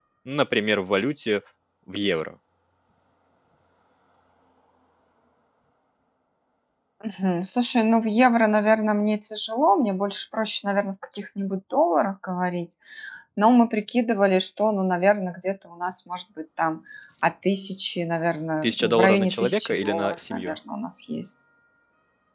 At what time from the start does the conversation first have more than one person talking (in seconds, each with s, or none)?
18.6 s